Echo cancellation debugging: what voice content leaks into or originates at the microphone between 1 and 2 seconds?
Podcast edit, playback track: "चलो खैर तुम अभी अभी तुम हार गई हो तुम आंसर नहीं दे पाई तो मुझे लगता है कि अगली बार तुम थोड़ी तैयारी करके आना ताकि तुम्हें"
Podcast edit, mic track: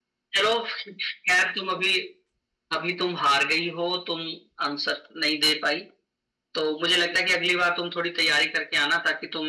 echo only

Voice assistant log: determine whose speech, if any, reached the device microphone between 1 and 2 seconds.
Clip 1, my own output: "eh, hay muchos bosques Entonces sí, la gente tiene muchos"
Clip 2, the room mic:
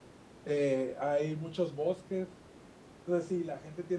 echo only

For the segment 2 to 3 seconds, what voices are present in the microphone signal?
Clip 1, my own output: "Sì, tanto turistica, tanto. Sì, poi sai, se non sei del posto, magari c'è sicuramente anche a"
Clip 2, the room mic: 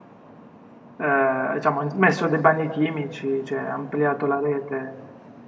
user only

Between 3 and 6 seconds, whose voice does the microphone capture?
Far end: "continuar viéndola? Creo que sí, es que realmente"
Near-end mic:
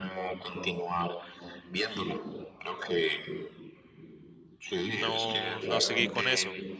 both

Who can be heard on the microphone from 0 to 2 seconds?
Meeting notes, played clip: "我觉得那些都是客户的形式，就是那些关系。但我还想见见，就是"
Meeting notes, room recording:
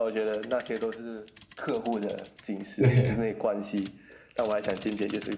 echo only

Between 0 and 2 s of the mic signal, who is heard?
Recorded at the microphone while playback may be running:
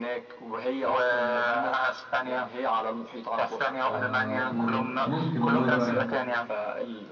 echo only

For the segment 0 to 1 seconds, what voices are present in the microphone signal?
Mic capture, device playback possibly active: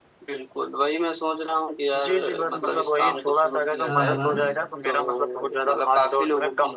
echo only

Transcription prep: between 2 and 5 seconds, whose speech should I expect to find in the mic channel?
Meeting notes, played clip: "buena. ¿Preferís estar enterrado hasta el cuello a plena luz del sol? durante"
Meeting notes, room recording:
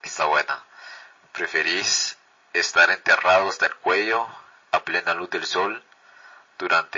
echo only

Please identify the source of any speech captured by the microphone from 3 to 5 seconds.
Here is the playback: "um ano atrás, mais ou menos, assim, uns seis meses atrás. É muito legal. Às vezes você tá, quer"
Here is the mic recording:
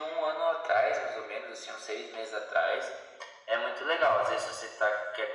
echo only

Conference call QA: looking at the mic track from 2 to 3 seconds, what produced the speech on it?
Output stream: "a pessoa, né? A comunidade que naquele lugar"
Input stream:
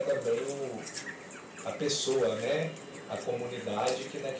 echo only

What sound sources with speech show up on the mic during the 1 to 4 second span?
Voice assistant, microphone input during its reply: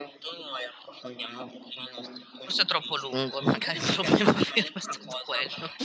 both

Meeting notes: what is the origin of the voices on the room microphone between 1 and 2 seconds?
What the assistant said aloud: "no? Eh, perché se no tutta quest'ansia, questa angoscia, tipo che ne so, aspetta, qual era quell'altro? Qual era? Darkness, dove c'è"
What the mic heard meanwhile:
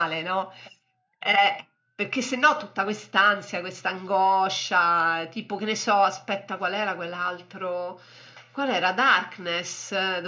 echo only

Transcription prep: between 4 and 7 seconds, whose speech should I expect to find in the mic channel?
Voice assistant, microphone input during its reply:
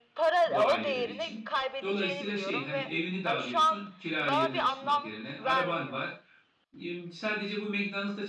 both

